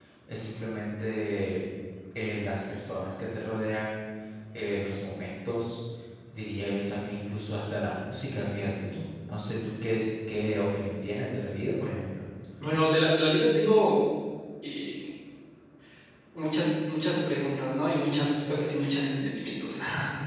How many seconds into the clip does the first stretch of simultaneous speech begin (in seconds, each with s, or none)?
none